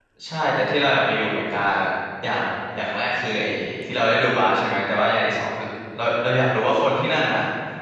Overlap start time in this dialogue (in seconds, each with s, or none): none